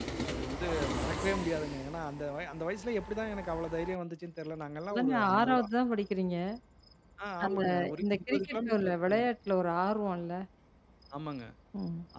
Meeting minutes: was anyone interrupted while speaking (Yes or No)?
Yes